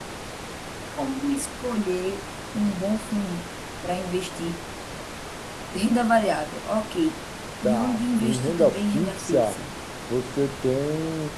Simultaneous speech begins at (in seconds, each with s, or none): 7.6 s